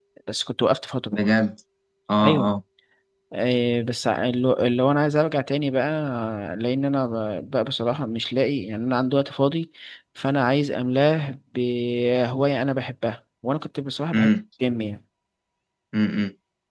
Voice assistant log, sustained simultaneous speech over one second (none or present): none